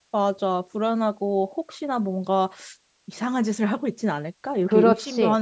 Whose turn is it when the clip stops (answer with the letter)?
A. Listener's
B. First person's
A